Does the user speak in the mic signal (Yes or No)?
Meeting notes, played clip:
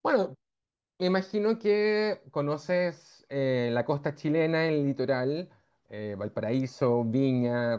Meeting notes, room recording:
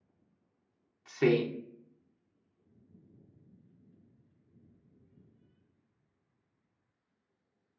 Yes